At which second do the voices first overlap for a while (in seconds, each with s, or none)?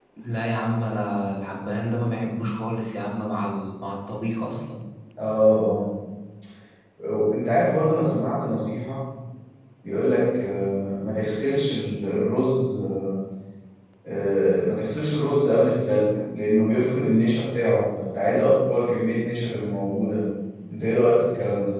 none